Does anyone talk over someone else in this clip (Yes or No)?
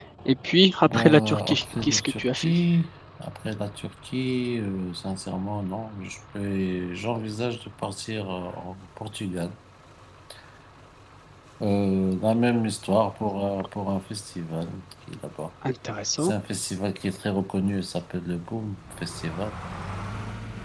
Yes